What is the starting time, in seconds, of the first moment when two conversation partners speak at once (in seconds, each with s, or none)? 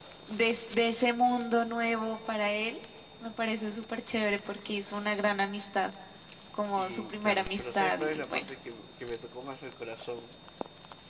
6.8 s